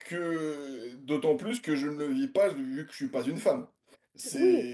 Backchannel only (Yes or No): No